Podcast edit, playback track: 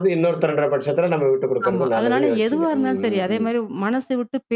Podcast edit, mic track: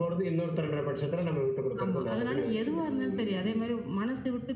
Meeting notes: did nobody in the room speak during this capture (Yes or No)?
Yes